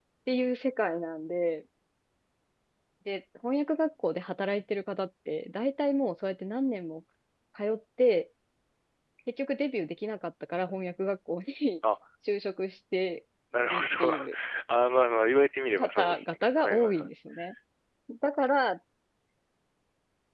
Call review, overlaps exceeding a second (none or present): present